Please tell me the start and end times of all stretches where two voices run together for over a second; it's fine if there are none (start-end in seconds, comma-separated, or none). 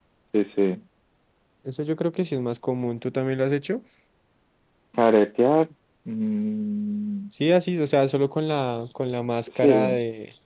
none